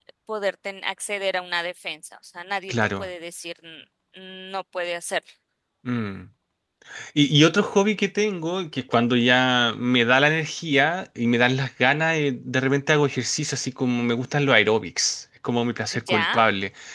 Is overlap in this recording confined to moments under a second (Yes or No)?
Yes